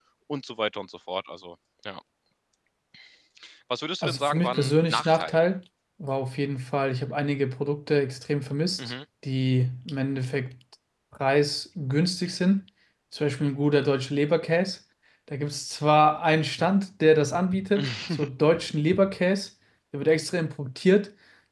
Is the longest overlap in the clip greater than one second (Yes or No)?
Yes